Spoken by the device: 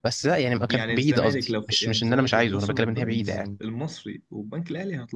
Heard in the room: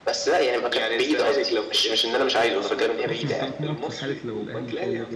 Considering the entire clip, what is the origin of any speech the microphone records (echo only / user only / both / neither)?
both